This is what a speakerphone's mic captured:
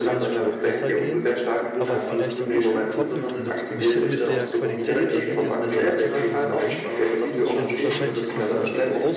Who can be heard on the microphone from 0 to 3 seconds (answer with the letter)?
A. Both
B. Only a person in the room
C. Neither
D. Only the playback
A